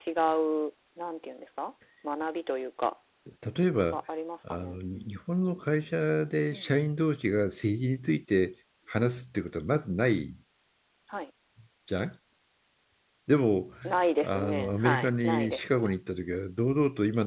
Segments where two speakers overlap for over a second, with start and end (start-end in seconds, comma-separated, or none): 14.2-15.9